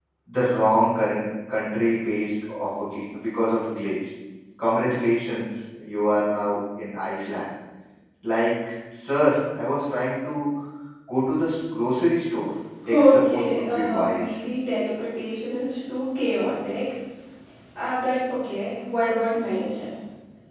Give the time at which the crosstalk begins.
13 s

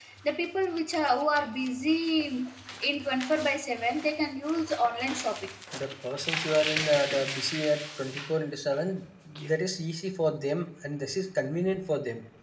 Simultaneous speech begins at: none

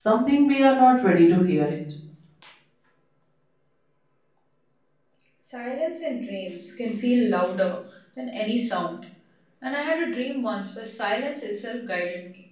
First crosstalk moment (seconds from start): none

